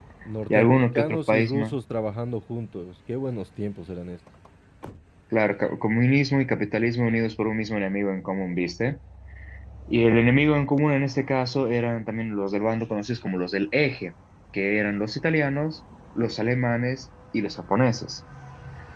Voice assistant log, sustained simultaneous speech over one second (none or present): present